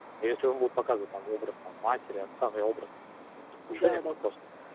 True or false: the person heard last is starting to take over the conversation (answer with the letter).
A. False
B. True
A